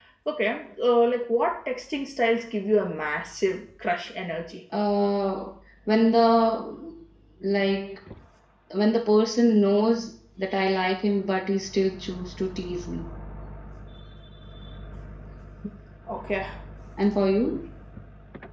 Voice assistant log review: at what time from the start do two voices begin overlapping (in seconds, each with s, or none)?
none